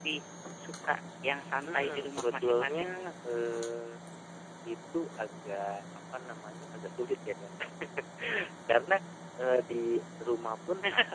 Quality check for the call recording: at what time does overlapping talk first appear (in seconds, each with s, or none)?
1.6 s